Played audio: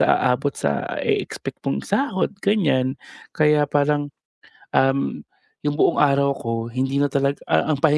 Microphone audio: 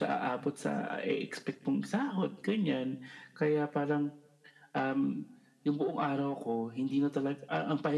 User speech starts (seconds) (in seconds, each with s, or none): none